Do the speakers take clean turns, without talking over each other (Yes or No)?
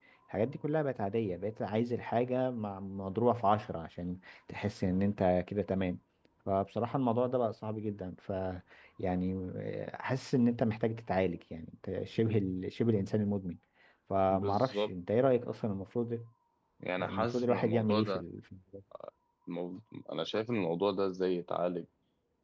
No